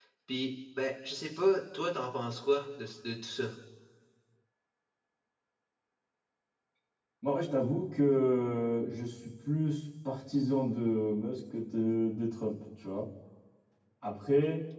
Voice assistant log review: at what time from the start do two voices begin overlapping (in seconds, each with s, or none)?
none